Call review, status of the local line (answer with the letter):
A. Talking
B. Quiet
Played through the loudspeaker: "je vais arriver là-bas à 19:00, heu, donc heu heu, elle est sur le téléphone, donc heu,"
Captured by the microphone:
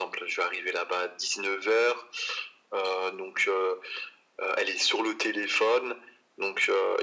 B